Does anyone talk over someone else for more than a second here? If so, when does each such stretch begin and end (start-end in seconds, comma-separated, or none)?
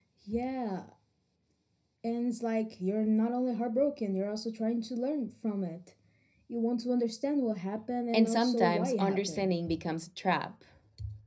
8.1-9.5